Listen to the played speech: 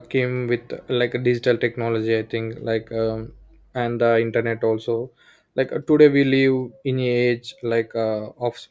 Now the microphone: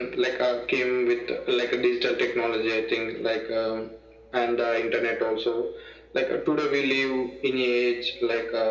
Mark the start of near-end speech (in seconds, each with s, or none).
none